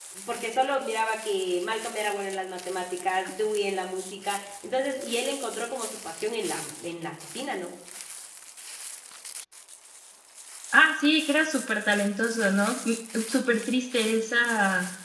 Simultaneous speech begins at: none

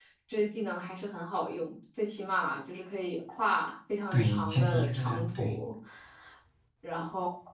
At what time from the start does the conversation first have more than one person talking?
4.1 s

